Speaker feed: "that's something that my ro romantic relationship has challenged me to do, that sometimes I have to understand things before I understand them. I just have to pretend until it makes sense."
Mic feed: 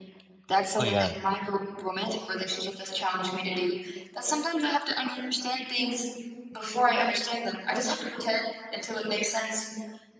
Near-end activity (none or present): present